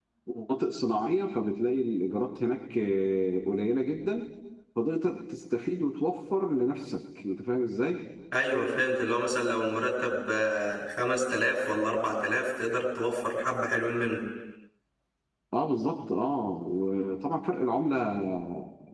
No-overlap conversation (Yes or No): Yes